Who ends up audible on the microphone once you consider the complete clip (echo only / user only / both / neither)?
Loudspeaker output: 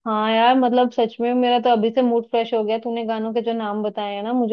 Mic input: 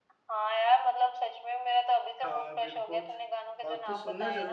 both